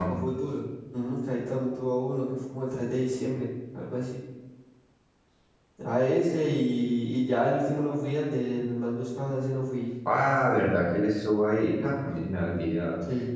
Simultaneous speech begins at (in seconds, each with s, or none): none